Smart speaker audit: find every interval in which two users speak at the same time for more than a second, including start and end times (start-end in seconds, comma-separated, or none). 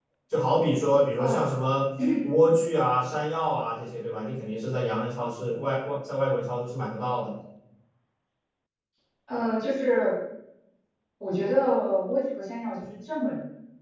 none